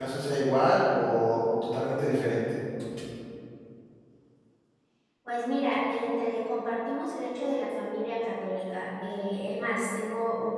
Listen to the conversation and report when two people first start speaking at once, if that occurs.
none

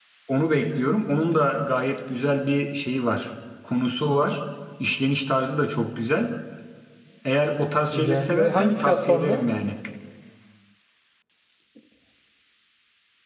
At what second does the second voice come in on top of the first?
7.9 s

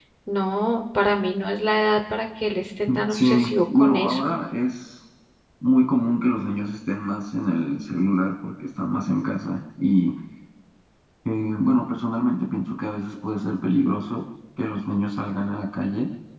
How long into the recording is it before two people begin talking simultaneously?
2.9 s

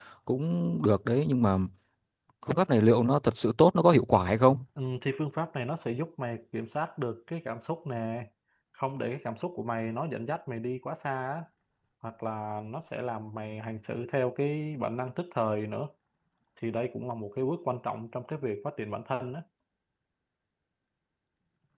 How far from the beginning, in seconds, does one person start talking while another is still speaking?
none

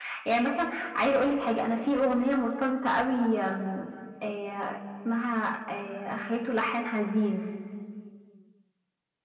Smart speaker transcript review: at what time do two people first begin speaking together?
none

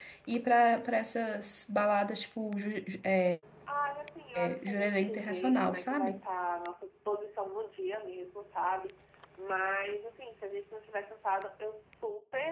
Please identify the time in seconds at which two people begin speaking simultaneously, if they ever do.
4.4 s

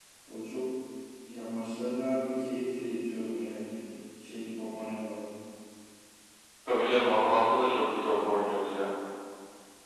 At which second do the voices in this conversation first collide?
none

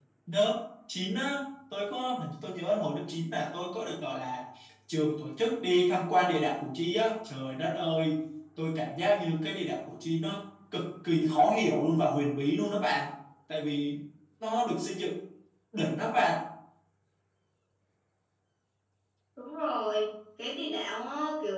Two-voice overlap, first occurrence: none

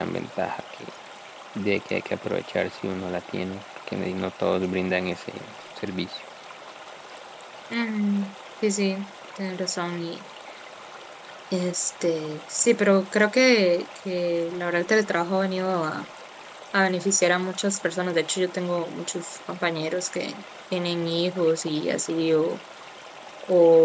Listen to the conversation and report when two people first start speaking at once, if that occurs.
none

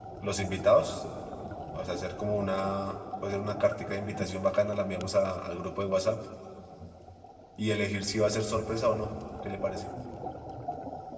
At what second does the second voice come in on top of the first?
none

